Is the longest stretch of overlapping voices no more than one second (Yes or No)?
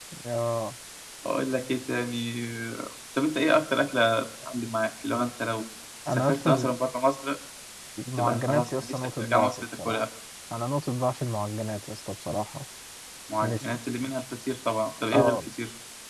No